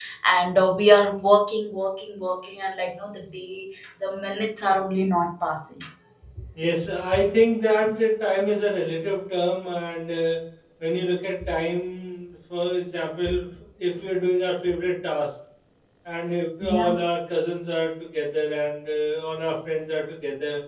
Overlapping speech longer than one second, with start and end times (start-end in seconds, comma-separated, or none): none